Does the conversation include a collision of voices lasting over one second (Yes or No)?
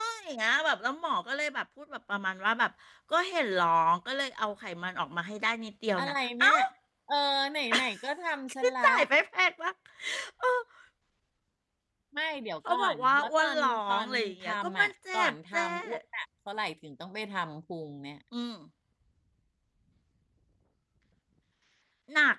Yes